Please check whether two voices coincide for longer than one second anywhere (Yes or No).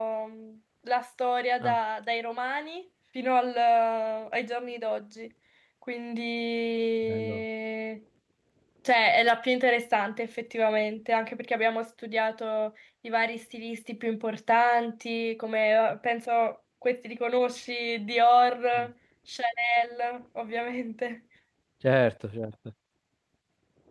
No